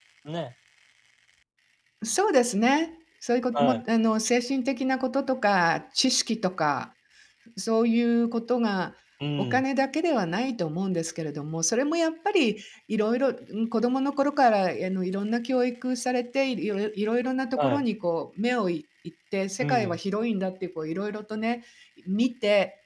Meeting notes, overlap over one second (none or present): none